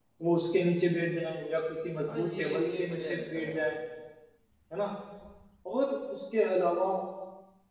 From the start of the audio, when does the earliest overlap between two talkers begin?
2.0 s

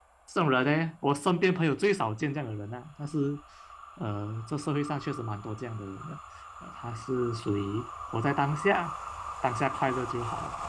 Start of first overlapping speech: none

